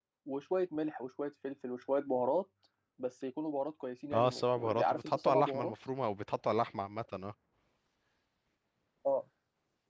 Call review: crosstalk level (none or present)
present